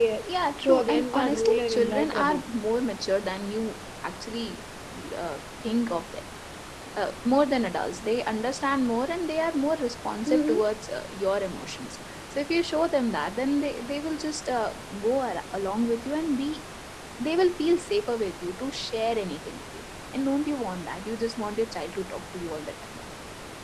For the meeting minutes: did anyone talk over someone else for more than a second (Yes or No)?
Yes